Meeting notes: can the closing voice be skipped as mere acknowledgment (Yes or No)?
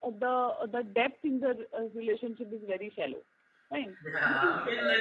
No